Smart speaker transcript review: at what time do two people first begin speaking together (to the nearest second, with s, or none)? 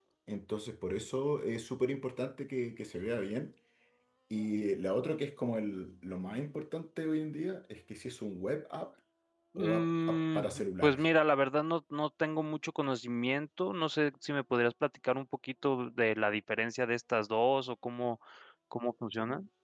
10 s